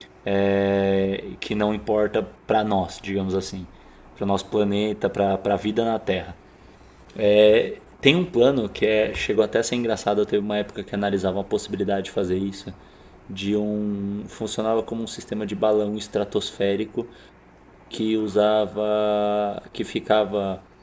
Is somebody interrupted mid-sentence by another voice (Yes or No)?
No